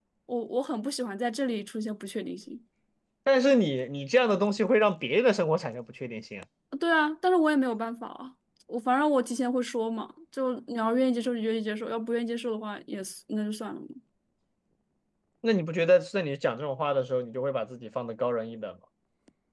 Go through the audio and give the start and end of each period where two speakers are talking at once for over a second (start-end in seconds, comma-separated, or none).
none